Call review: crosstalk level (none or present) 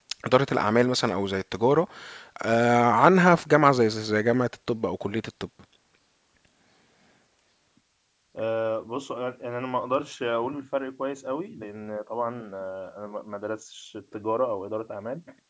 none